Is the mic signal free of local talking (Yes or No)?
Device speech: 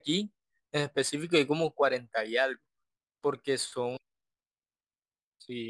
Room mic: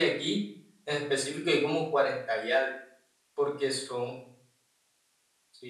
Yes